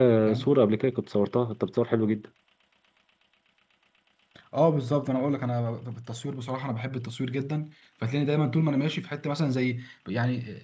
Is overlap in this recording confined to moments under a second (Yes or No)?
Yes